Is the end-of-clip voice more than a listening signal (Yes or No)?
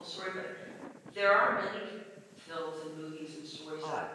No